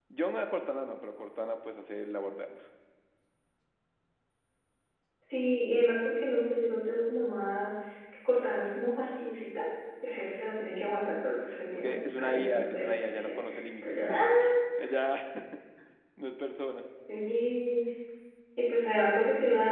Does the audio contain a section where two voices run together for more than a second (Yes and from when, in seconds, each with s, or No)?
Yes, from 11.7 s